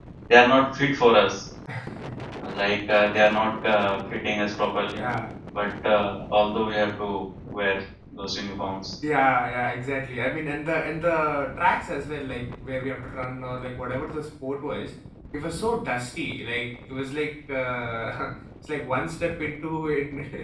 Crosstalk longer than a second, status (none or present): none